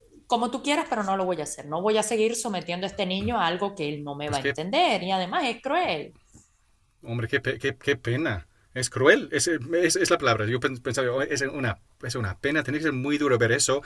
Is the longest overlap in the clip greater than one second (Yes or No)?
No